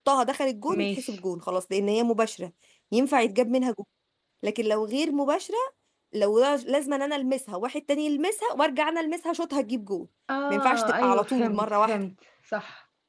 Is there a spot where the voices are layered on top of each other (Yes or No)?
Yes